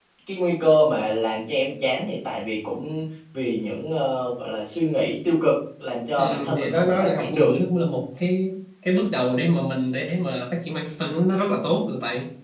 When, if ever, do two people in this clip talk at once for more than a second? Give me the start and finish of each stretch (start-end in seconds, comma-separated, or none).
6.2-7.5